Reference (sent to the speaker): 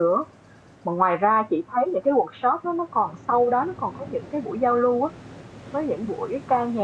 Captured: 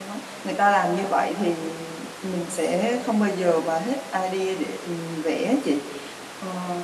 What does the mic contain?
user only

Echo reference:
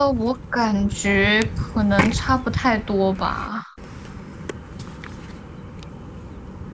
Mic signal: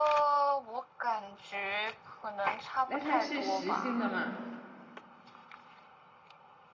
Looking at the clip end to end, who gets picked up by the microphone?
both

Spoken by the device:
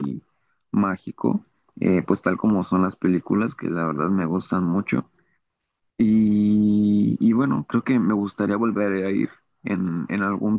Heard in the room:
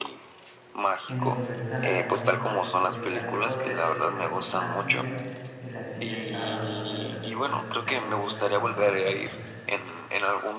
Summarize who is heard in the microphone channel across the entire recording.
both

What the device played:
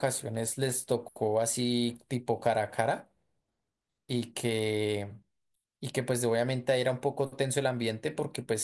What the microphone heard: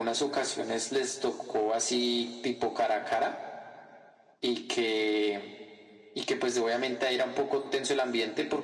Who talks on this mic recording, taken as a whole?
echo only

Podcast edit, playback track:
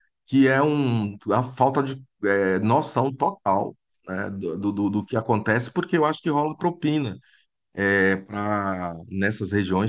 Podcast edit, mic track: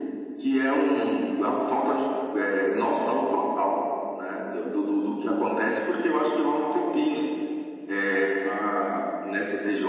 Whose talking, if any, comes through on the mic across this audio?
echo only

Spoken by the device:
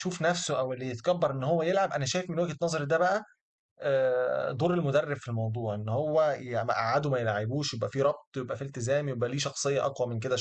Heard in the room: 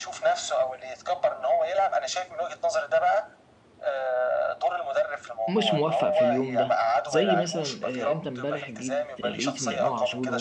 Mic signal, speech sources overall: both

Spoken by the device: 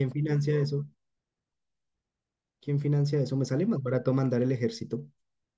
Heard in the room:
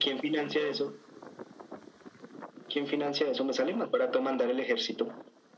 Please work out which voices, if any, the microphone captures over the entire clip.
echo only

